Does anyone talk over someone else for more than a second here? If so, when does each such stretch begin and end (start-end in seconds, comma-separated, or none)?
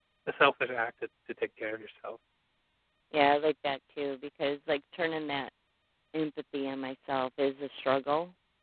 none